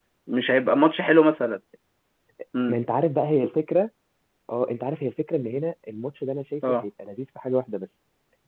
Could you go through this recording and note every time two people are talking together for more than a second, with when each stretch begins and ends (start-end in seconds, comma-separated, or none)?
none